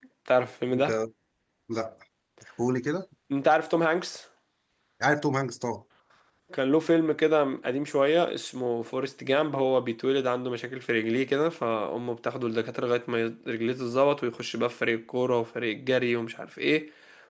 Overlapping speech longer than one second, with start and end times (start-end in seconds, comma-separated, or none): none